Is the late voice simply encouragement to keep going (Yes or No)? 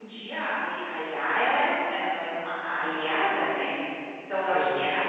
Yes